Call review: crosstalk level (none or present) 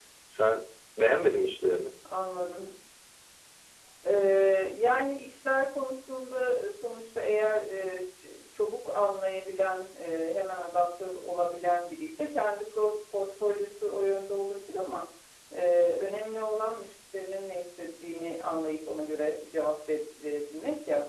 none